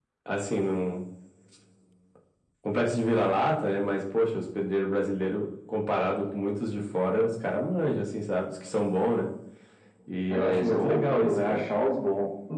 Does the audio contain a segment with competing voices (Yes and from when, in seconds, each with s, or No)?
Yes, from 10.3 s